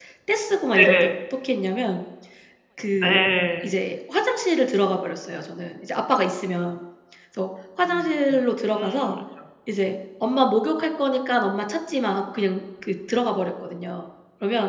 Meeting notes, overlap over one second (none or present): none